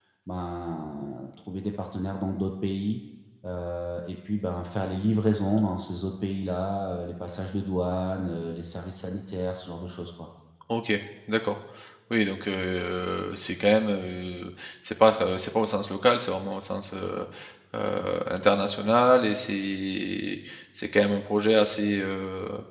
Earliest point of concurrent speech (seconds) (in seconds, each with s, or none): none